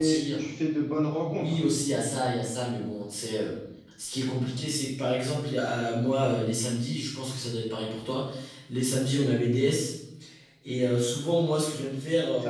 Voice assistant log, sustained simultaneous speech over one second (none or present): none